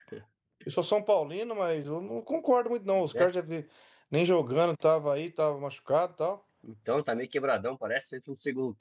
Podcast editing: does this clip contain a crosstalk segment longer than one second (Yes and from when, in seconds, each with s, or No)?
No